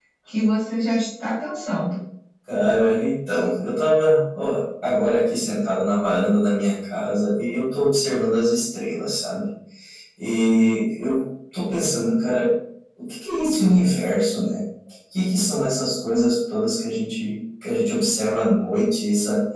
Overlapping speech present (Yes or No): No